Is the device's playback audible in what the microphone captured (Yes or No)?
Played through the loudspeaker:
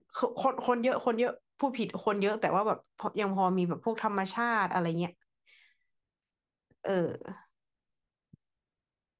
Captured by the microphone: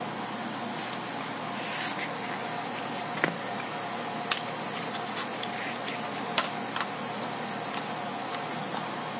No